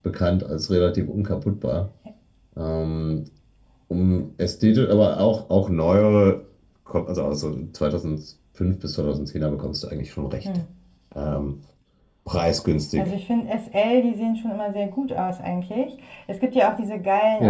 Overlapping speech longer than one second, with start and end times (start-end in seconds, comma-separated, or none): none